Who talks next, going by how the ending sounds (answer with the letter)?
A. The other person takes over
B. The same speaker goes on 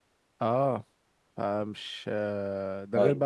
B